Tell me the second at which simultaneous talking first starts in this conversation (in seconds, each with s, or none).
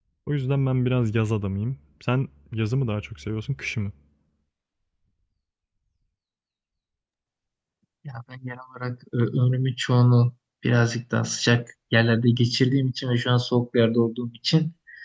none